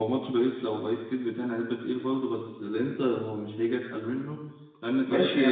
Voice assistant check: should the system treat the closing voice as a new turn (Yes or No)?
Yes